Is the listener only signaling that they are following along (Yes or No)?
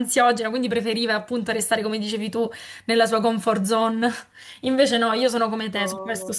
Yes